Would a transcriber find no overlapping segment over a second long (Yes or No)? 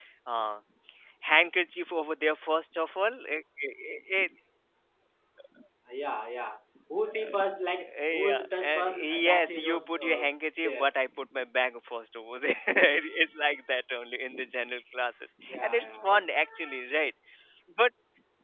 No